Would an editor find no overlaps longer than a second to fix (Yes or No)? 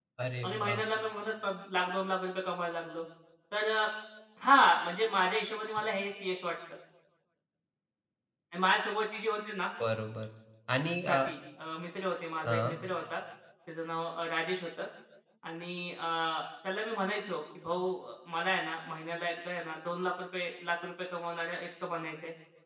Yes